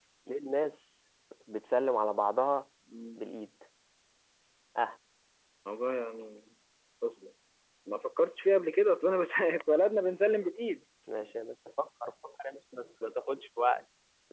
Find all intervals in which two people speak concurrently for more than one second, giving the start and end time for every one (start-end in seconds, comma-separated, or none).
none